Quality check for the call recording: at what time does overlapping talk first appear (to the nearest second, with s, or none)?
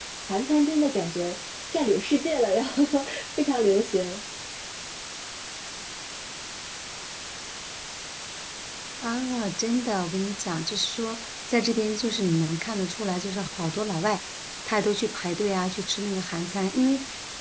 none